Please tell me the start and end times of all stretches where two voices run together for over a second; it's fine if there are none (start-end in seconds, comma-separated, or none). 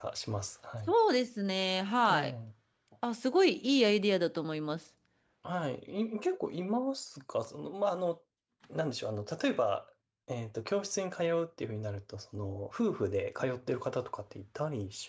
none